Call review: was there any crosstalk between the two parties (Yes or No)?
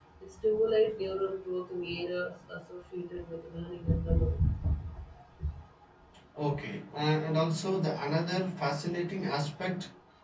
No